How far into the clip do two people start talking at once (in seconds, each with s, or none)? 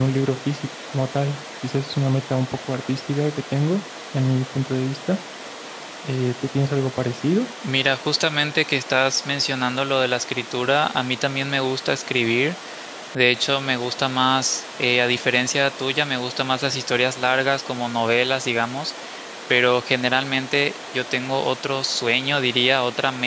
none